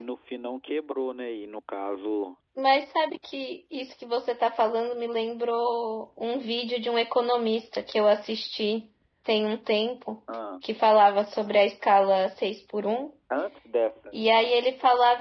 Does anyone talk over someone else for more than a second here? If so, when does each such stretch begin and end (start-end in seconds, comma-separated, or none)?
none